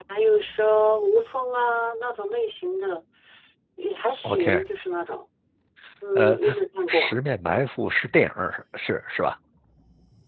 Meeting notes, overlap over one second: none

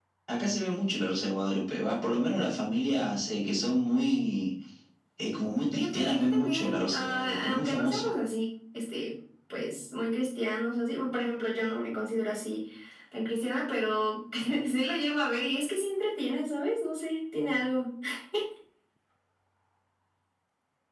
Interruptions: present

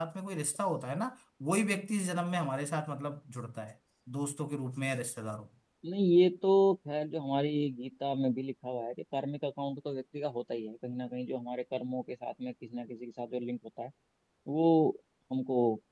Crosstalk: none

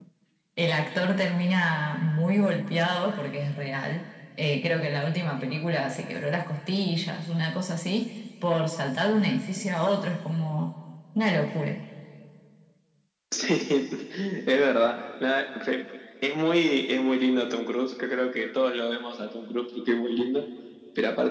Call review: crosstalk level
none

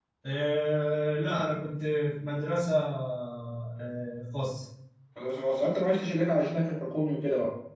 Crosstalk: none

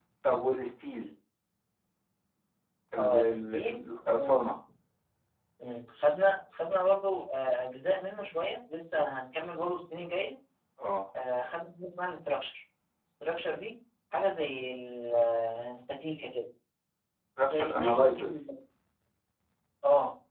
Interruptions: present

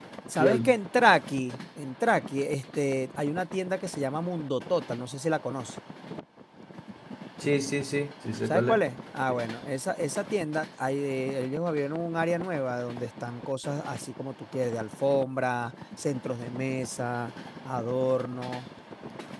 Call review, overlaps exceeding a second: none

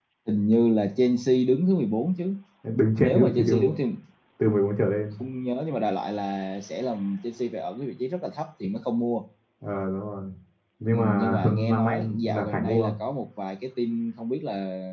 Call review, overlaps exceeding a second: present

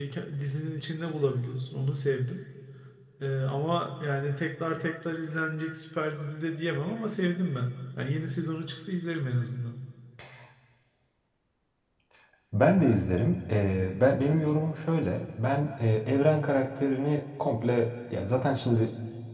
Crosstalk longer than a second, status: none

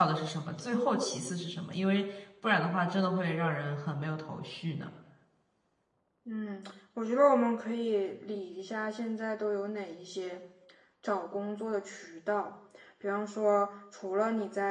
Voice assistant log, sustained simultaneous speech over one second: none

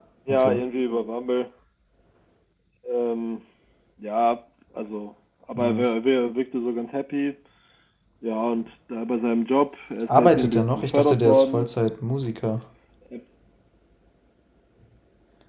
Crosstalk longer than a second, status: present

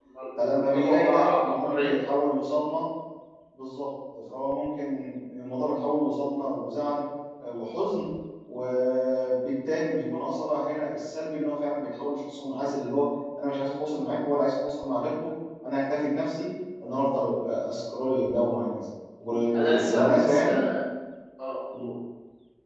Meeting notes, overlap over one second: present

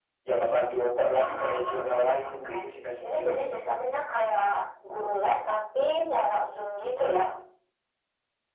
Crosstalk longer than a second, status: present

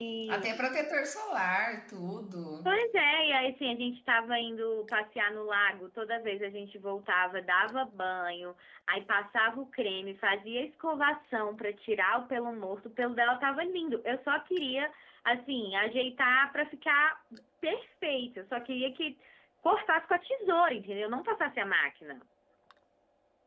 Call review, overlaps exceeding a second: none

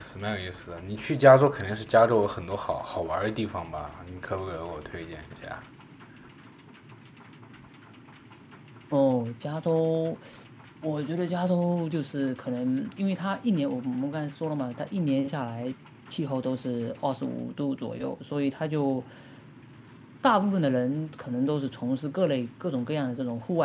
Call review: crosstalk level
none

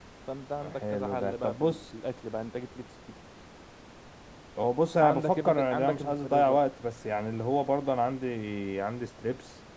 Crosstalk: present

